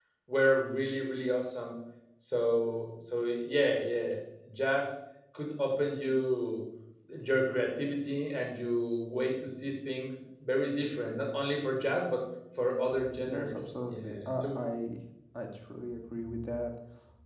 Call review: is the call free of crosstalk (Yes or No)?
No